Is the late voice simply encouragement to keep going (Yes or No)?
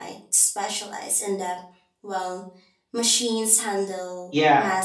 No